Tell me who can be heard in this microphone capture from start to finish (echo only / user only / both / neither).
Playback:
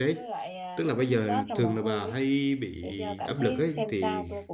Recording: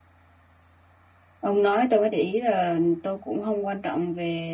user only